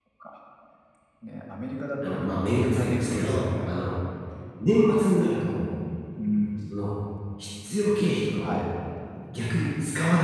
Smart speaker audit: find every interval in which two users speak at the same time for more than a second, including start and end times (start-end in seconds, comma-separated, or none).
2.0-3.7